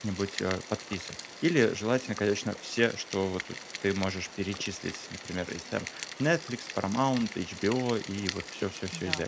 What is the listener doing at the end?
listening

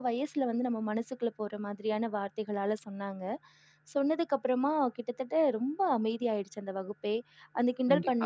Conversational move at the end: taking over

